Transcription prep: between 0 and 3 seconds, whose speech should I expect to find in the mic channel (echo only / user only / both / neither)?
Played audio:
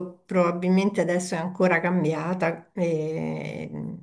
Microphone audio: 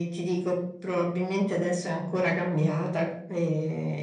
echo only